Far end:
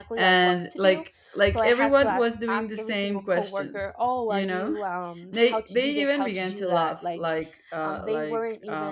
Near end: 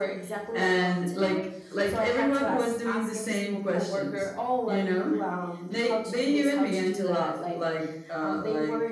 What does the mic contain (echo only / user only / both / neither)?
echo only